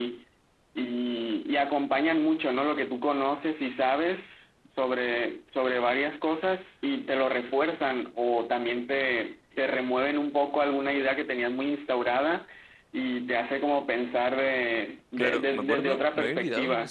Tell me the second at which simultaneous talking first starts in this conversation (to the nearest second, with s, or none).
15 s